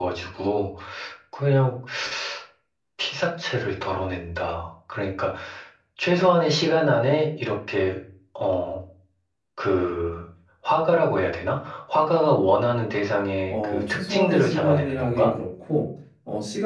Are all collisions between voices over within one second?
No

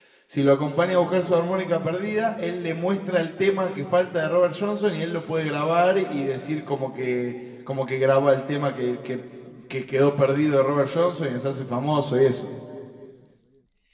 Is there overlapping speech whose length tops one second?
No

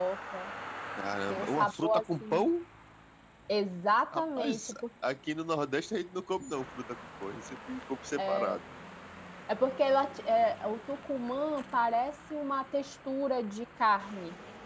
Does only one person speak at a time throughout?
No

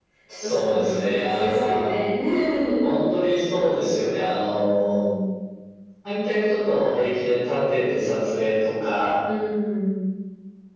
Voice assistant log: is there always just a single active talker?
No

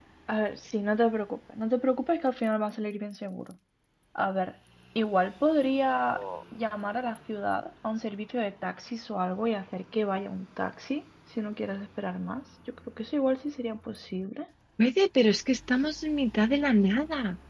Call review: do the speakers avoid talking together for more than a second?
Yes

